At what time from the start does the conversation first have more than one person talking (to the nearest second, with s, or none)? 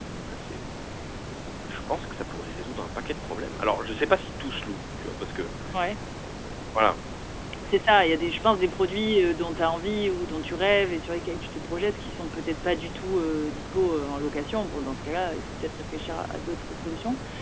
none